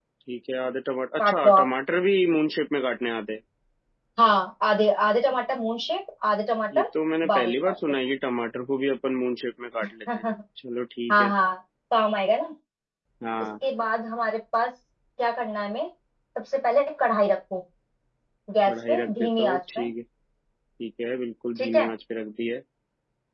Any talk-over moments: Yes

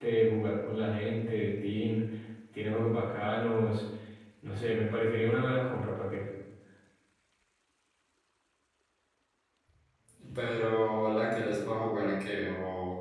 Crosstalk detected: No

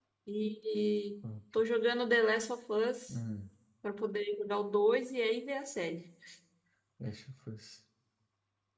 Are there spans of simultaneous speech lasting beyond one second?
No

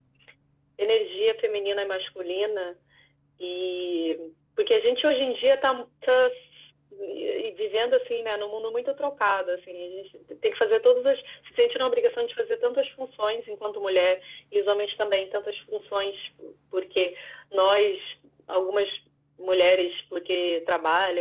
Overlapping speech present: No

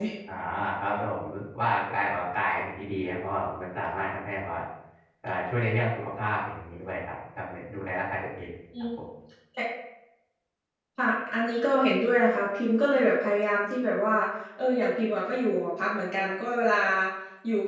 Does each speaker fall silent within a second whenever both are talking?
Yes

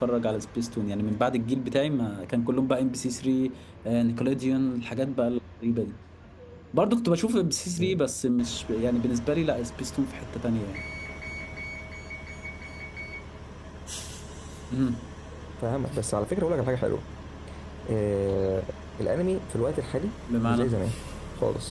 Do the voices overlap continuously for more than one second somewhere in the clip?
No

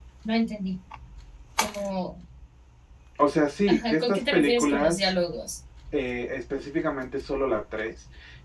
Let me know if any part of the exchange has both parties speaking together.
Yes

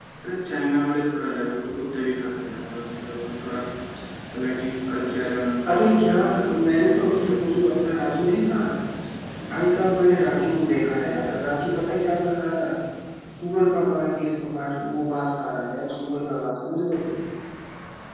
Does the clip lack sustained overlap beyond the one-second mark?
No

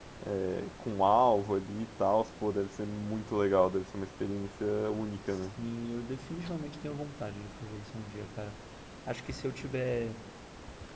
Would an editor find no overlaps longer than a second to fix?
Yes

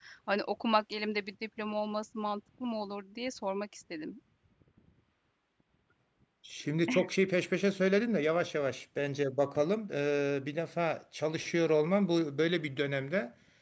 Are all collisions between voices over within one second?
Yes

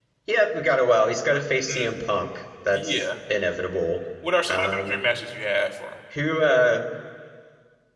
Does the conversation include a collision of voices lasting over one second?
No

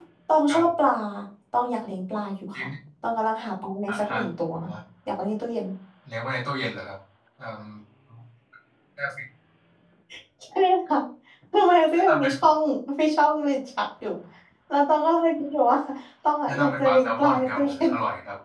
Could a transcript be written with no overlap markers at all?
No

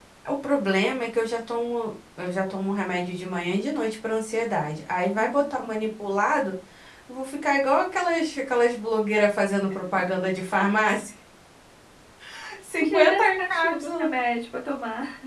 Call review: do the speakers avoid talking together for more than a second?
No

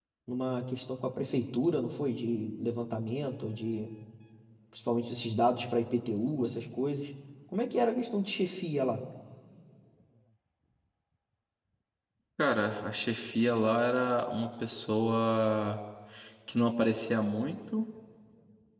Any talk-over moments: No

